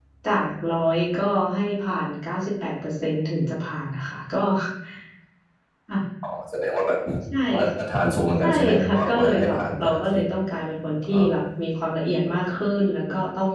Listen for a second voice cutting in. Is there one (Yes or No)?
Yes